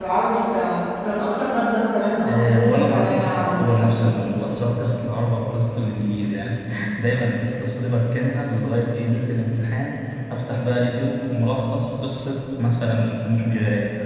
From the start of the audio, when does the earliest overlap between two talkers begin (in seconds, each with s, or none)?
2.1 s